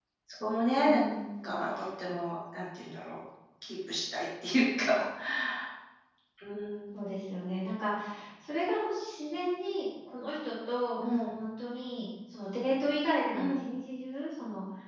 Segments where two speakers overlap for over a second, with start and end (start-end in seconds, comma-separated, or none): none